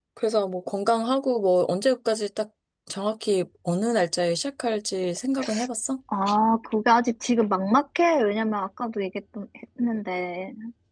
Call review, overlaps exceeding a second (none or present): none